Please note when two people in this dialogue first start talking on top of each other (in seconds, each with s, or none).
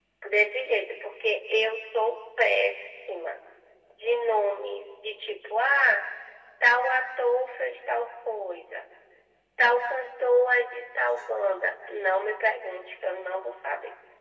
none